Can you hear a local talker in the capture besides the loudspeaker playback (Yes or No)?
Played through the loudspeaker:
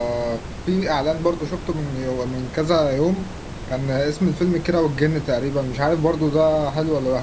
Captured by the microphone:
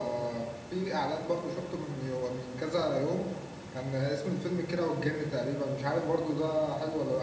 No